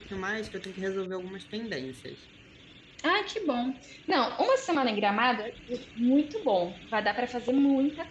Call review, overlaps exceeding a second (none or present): none